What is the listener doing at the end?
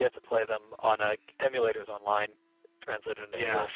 taking over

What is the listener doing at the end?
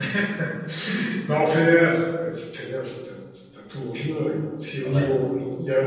listening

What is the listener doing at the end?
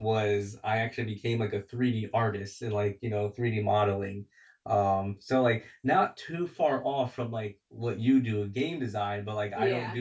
listening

